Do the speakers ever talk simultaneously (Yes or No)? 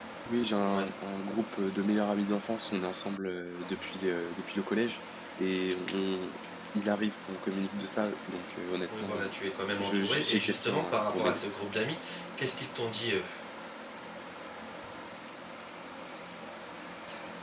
Yes